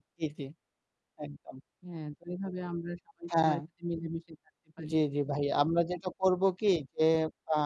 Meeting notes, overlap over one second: none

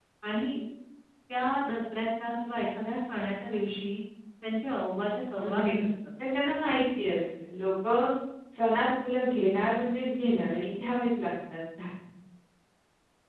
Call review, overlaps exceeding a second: none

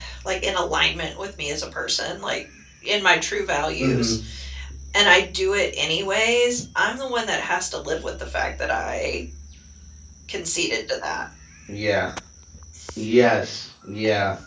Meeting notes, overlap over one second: none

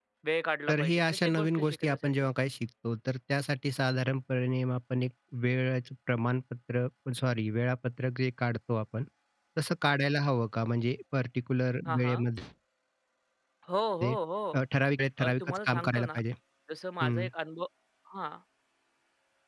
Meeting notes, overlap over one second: present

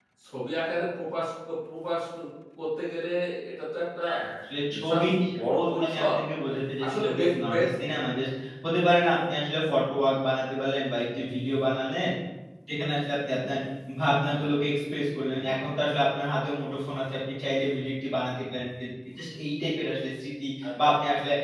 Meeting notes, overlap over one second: present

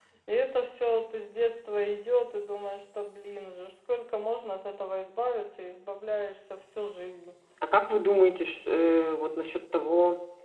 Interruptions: none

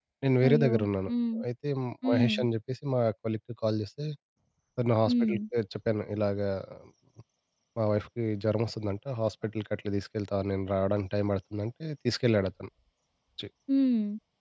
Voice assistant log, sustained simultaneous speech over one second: none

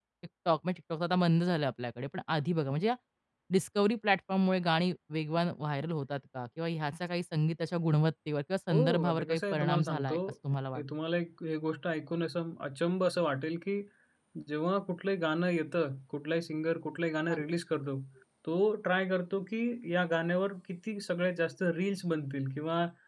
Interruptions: present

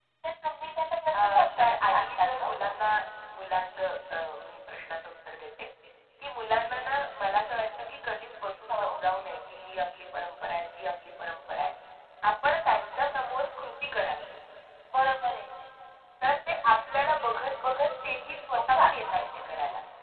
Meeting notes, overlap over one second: present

